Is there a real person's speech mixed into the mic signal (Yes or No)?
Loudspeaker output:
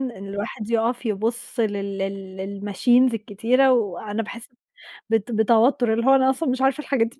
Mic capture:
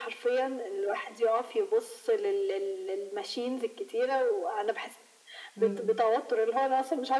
Yes